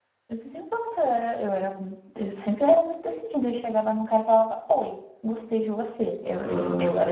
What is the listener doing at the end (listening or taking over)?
taking over